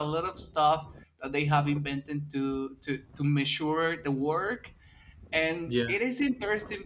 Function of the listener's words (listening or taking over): listening